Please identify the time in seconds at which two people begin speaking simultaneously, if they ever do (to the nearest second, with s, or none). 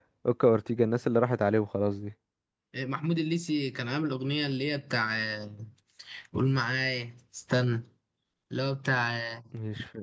none